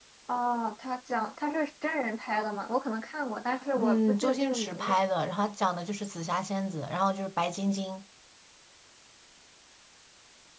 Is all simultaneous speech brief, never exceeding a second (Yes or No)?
No